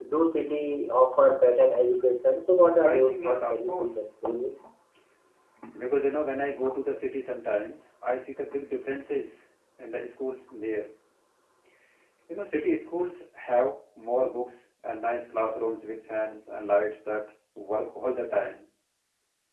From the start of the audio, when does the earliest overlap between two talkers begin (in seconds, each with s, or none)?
2.8 s